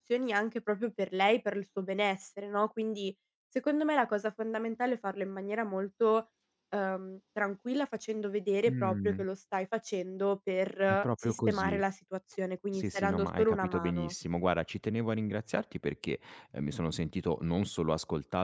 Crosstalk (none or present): present